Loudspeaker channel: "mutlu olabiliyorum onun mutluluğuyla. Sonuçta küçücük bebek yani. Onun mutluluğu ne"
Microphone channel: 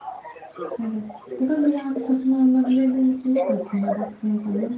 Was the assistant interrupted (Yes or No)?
Yes